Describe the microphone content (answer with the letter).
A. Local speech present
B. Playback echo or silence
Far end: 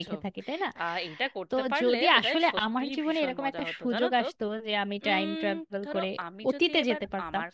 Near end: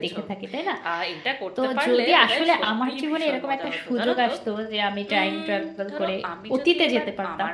B